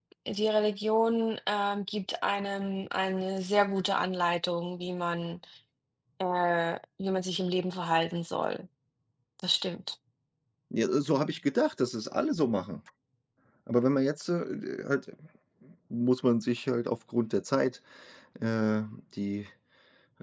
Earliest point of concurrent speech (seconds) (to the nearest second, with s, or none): none